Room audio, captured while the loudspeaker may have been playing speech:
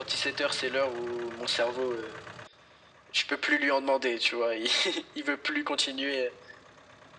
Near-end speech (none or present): none